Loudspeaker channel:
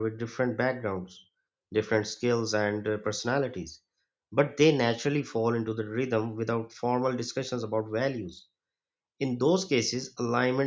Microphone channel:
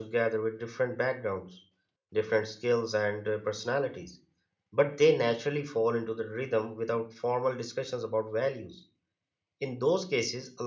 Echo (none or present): present